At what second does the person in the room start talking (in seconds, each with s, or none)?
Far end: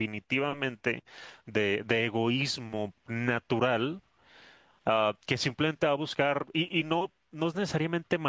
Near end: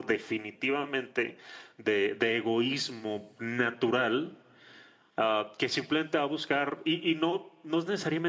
none